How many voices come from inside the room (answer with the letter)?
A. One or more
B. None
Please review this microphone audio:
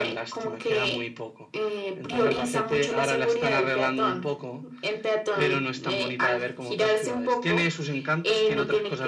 B